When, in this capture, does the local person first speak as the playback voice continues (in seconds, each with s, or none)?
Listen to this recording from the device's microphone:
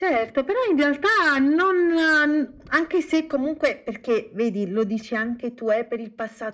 none